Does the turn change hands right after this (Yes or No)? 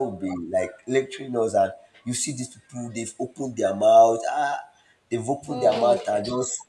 No